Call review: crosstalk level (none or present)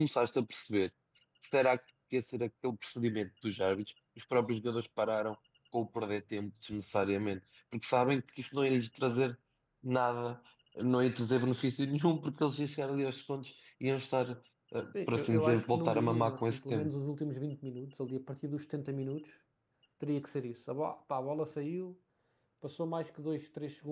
present